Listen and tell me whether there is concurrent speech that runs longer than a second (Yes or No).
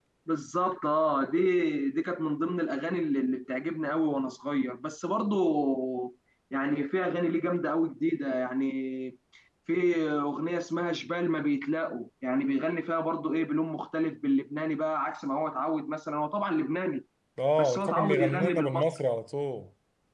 Yes